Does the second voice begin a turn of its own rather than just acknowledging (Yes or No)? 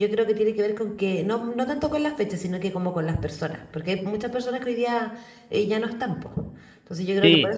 Yes